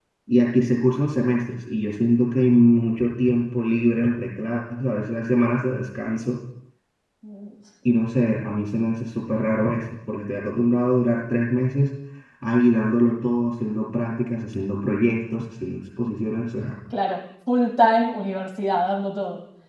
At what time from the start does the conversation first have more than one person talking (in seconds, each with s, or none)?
none